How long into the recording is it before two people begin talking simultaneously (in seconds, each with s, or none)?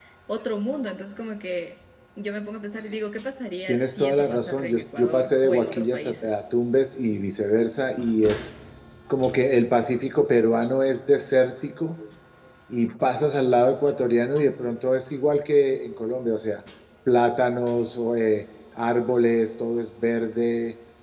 3.7 s